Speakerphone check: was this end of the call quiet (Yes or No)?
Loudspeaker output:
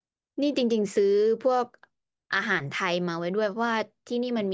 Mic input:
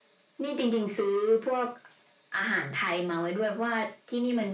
Yes